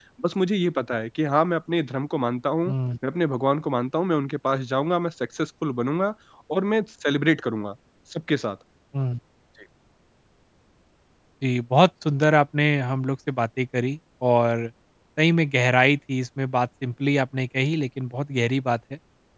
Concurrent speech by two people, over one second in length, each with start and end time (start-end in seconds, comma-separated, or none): none